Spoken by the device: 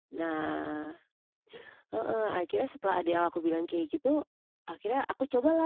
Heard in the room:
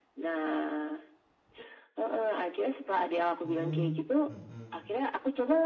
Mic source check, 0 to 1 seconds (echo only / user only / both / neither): echo only